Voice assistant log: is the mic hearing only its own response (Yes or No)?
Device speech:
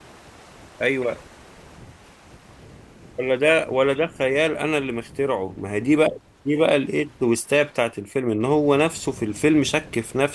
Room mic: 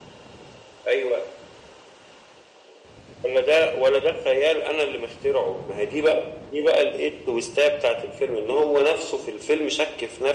Yes